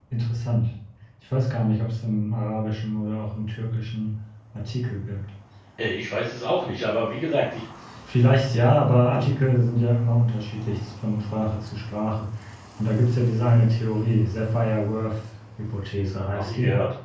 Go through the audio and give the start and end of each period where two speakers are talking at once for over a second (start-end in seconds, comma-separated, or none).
none